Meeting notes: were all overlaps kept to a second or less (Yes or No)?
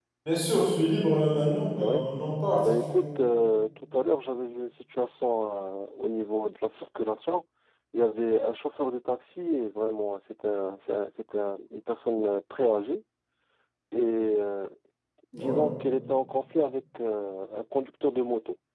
Yes